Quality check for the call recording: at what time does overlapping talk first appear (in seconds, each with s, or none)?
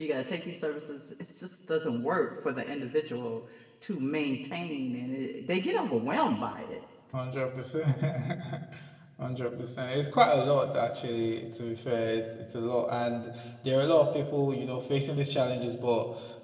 none